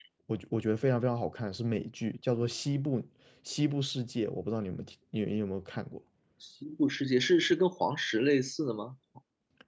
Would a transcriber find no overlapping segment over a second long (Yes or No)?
Yes